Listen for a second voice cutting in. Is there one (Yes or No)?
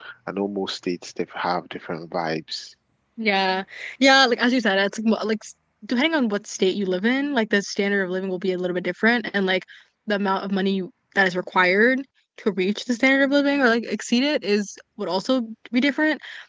No